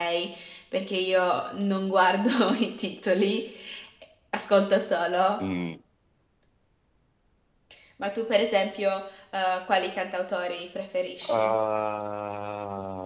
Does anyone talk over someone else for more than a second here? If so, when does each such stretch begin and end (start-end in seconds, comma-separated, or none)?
none